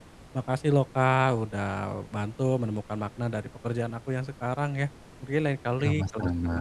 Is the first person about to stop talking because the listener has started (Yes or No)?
No